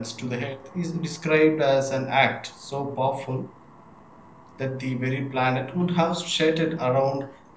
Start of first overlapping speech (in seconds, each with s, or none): none